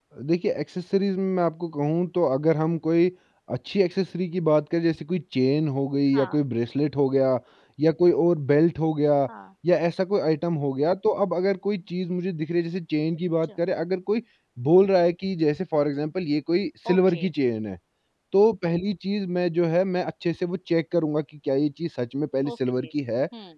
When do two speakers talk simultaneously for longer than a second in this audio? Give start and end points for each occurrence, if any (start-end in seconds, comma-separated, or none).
none